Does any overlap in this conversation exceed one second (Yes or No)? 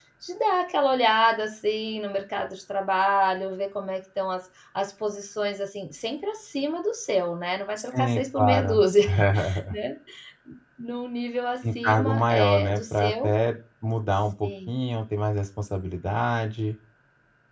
Yes